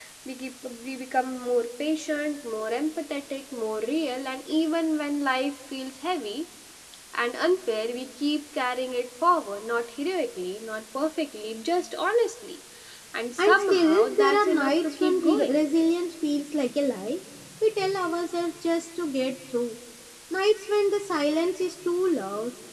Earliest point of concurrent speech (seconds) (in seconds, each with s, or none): 13.4 s